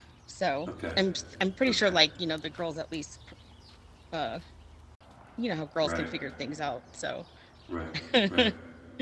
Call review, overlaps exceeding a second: none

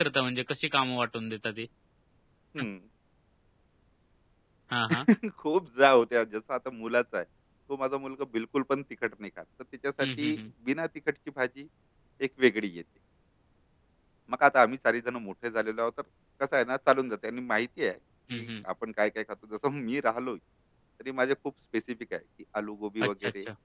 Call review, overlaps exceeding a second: none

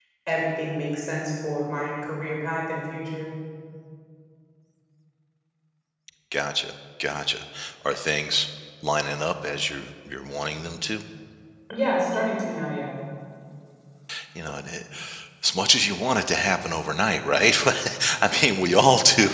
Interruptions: none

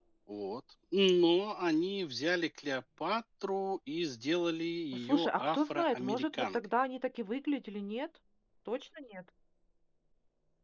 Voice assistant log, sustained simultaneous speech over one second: present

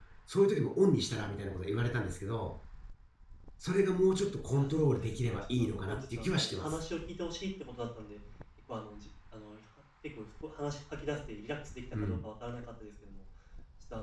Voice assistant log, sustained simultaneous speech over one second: present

